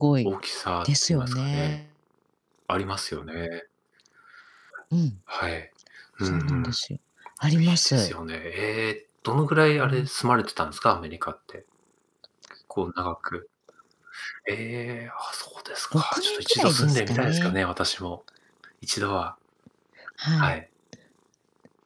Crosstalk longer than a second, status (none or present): present